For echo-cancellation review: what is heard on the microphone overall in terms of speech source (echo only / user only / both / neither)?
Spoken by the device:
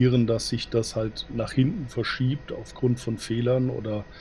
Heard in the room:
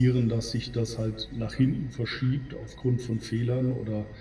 echo only